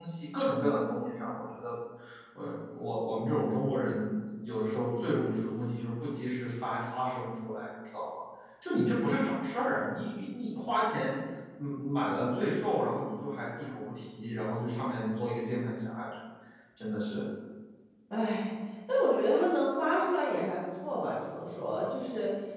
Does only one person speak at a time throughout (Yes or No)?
Yes